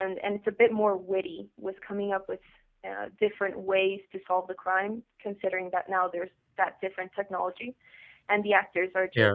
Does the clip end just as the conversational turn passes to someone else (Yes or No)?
No